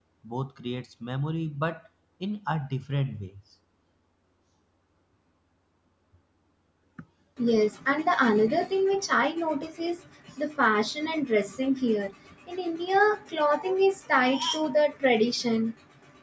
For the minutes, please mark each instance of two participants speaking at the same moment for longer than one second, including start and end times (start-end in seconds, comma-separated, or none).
none